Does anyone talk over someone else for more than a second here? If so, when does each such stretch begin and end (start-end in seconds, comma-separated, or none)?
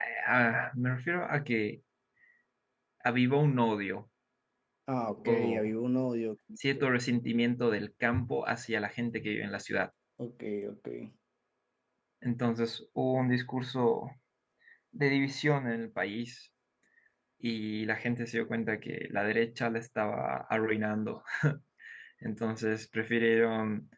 none